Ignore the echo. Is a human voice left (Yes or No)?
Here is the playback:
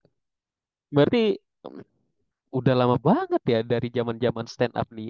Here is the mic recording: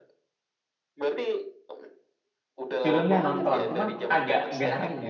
Yes